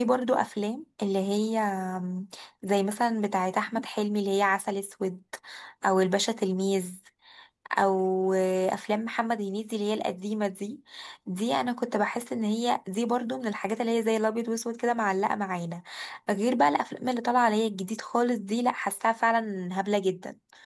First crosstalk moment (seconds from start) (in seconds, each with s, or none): none